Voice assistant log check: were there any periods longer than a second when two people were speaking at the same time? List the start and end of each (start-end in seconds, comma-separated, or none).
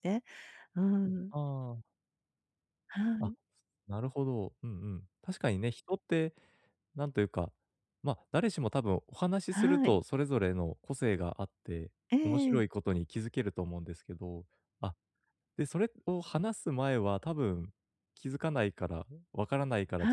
none